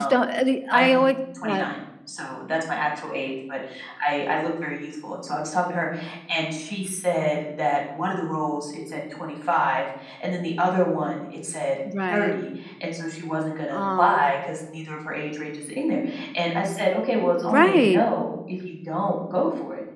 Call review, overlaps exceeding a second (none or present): none